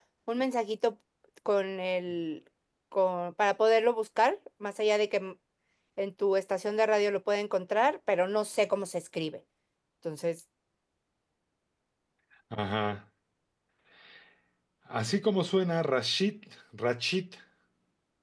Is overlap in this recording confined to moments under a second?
Yes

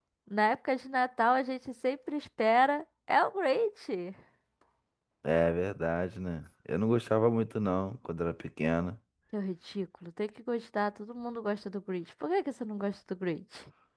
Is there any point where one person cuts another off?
No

